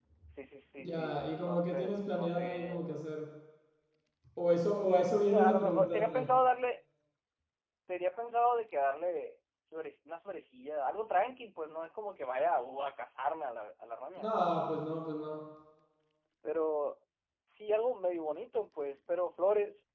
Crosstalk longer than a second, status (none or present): present